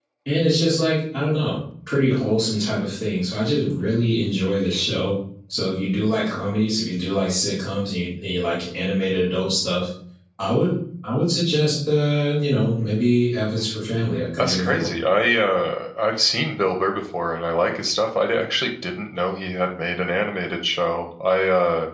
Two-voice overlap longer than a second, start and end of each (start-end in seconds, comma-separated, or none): none